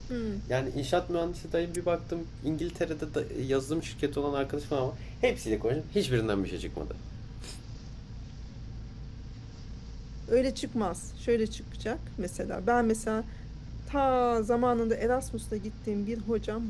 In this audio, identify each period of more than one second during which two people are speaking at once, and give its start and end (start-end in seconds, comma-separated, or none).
none